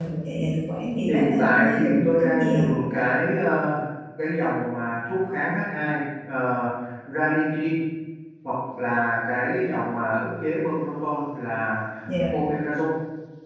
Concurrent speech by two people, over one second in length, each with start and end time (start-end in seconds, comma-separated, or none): 1.1-2.6